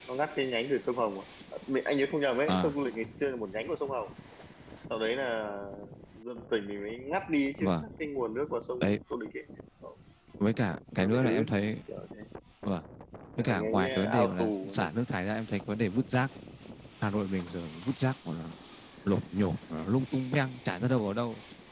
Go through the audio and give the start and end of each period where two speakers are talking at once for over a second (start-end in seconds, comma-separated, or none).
13.4-14.8